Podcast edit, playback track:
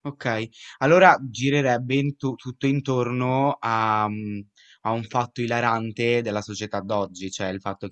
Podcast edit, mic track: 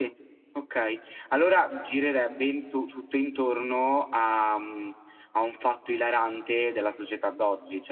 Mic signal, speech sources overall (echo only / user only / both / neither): echo only